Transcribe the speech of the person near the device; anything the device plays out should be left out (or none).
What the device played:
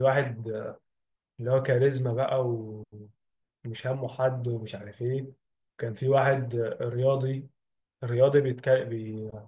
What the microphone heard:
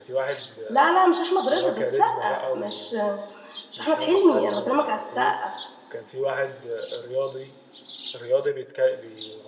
لا لا مش احمد رضا ده السقا مش مش احمد حلمي انا بكلمك على السقا